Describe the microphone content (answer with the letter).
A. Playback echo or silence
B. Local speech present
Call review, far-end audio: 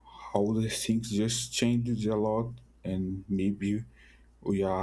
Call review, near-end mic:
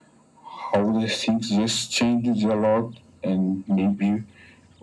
A